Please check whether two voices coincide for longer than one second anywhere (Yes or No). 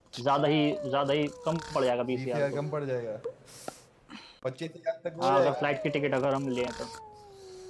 No